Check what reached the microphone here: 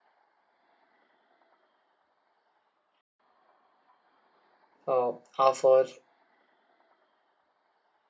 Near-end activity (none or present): present